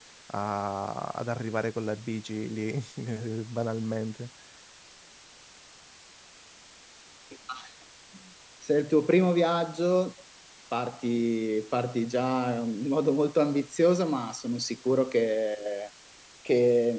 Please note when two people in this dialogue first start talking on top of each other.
none

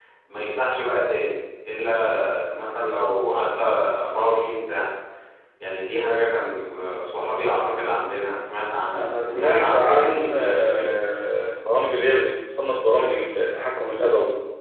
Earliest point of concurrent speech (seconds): 8.9 s

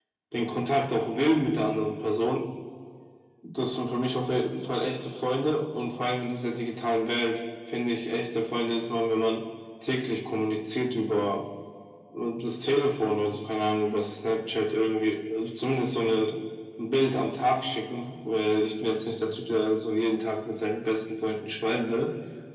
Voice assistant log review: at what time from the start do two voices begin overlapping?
none

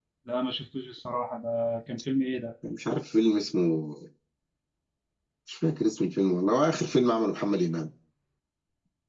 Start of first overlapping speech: none

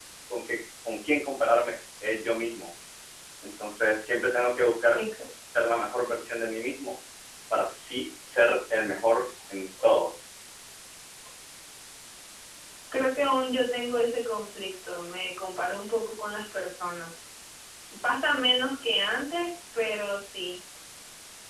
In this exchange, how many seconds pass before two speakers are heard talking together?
none

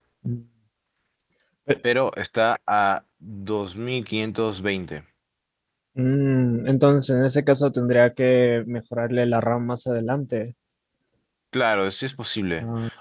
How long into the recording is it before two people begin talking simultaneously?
none

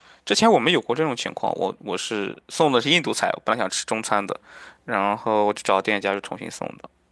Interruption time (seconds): none

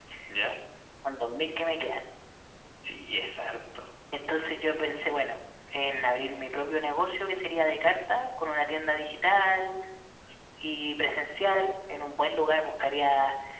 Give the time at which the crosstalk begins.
none

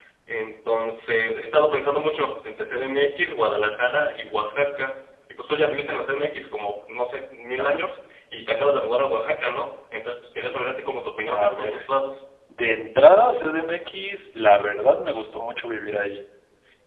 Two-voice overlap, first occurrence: 10.4 s

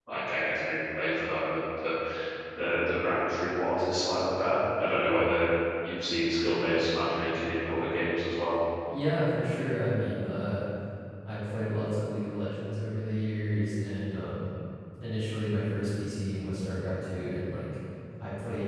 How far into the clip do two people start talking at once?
none

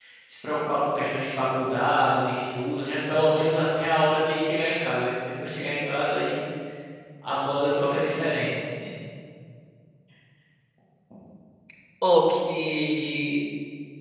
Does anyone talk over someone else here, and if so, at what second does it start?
none

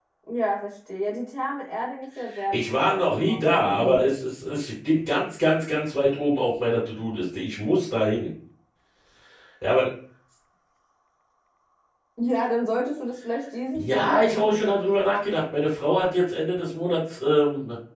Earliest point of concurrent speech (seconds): 2.5 s

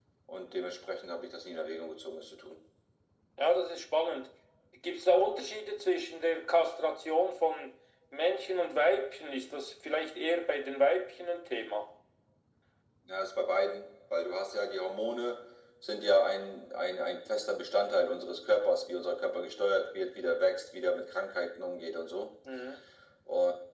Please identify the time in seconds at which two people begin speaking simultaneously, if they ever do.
none

